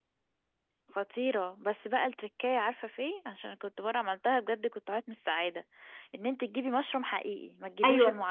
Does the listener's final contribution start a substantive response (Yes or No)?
Yes